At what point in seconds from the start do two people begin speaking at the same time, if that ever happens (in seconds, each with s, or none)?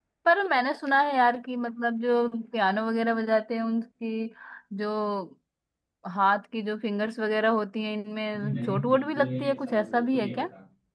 8.3 s